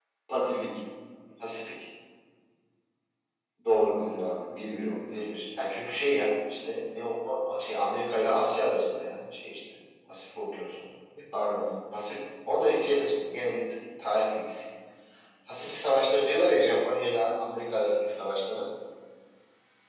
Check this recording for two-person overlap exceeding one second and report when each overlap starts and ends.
none

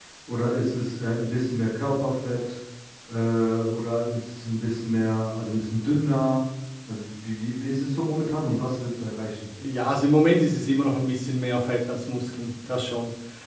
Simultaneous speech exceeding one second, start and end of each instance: none

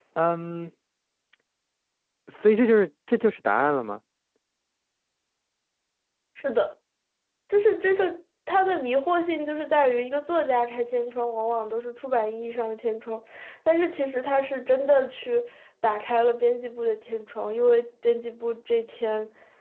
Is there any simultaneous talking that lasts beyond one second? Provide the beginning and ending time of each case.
none

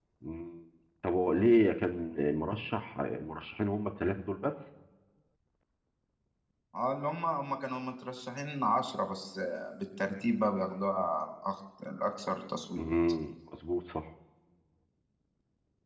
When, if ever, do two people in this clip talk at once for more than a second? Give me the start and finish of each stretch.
none

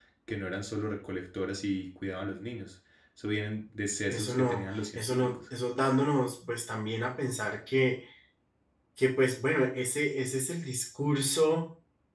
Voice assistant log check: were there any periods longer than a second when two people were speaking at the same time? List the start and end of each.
4.1-5.4

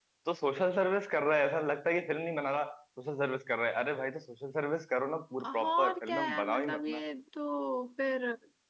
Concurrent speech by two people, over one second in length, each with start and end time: 5.4-7.0

